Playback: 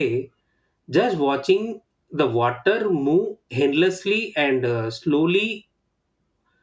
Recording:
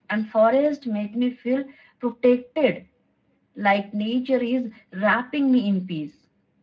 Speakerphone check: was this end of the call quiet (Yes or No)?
No